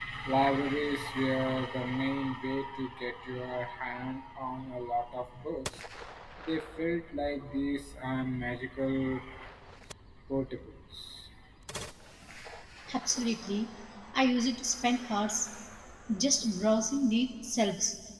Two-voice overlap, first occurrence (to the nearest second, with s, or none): none